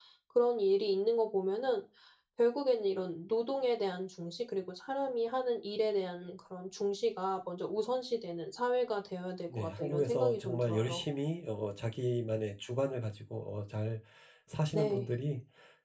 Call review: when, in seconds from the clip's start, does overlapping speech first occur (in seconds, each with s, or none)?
9.5 s